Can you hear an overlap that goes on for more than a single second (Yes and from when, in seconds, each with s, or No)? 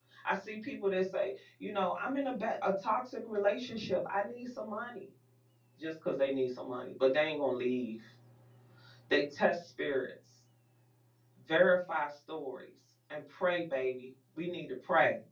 No